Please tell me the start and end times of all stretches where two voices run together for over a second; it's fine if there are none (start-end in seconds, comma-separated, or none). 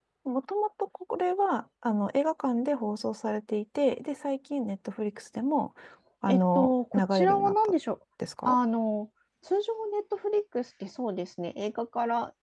6.3-7.5